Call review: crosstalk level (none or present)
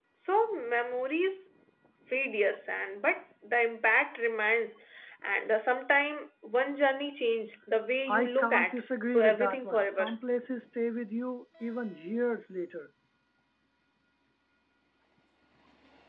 present